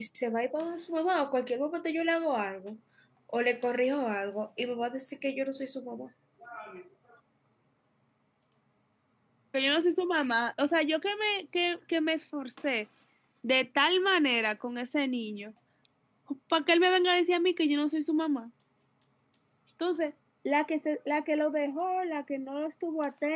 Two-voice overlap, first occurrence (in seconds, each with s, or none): none